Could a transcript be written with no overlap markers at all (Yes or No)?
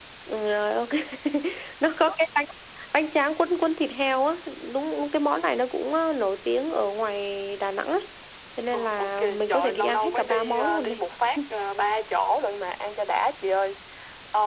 No